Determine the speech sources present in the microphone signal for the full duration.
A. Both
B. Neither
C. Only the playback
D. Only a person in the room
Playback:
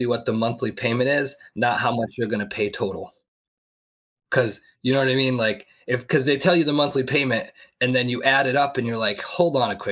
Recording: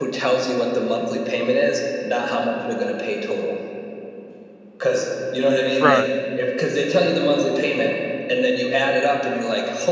A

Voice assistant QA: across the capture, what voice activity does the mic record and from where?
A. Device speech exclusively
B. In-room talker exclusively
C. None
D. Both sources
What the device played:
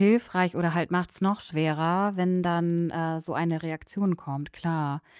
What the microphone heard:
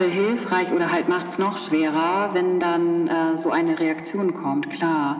A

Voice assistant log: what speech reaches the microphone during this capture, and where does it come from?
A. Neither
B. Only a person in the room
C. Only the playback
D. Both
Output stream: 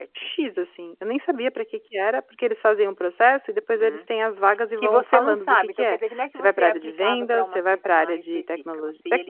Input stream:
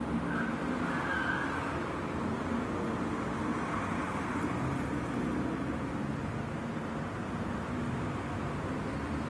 A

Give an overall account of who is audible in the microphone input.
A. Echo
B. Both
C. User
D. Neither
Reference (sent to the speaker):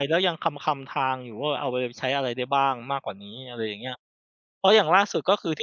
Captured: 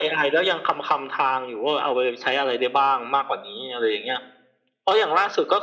A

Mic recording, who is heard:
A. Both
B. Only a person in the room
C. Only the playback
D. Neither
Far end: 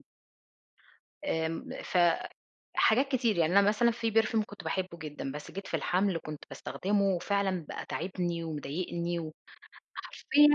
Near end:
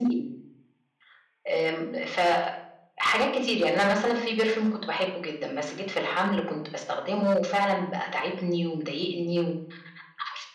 C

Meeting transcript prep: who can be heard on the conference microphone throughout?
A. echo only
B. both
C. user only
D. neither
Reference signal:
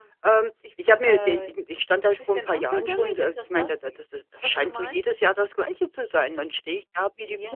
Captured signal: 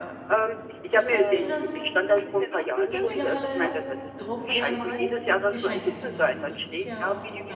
B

